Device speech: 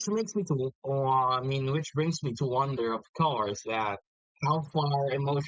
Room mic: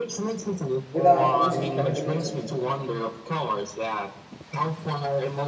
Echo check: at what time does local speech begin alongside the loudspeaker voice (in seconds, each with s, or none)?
0.9 s